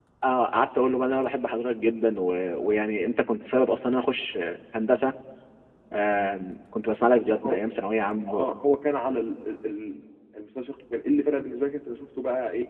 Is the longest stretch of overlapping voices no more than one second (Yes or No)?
Yes